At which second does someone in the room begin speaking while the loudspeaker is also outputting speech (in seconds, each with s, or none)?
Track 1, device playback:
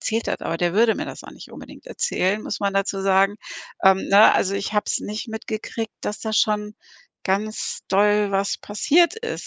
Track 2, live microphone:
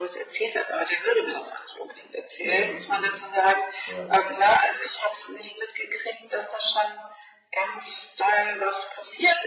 2.4 s